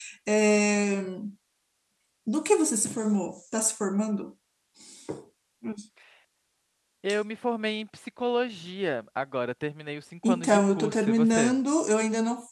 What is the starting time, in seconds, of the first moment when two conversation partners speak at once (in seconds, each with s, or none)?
10.2 s